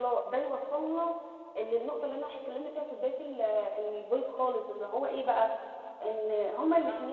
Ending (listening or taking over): listening